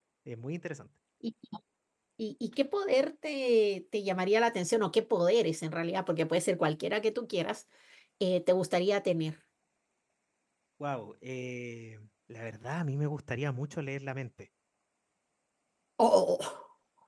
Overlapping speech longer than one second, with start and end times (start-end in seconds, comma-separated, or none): none